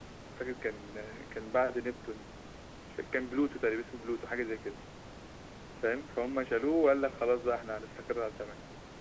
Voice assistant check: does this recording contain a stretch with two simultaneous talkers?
No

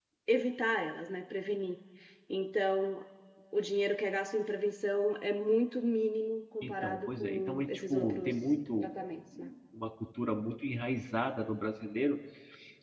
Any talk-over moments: Yes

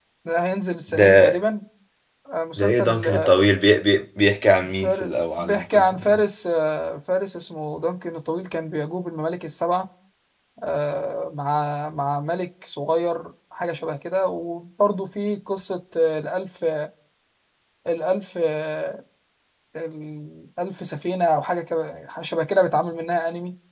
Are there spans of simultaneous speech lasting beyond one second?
Yes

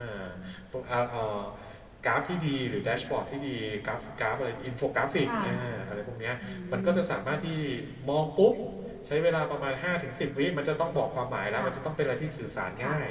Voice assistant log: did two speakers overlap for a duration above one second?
No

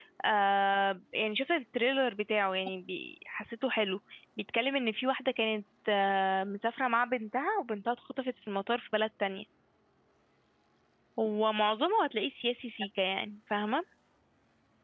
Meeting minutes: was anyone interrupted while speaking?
No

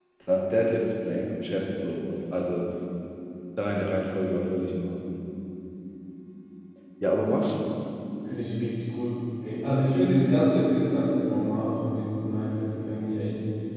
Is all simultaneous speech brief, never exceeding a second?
Yes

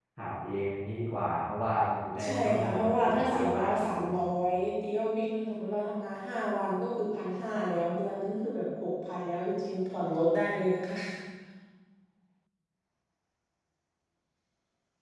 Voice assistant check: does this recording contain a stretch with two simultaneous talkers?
Yes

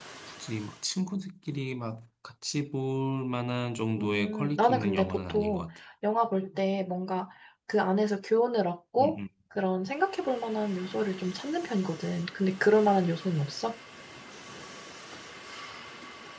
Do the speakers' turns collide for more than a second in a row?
Yes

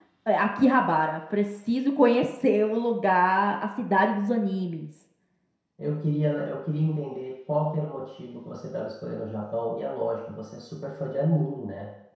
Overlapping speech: No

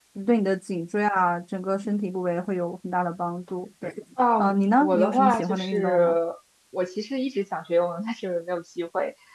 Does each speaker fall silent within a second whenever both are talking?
No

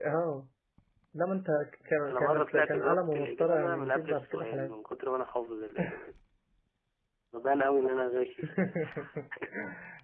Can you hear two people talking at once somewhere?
Yes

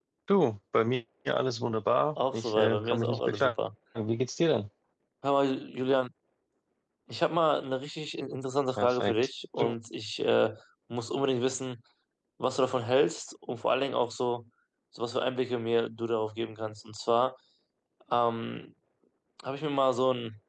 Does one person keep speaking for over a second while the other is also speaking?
Yes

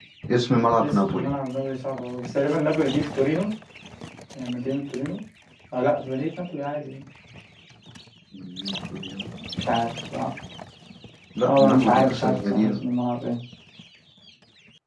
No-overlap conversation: No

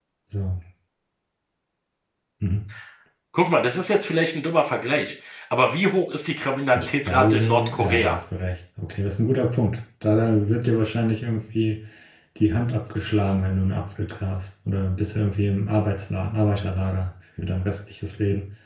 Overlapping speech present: Yes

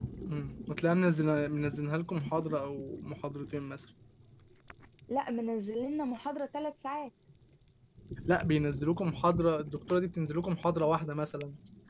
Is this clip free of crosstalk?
Yes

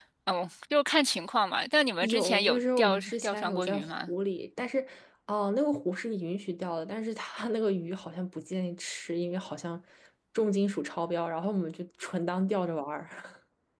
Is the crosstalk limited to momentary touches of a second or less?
No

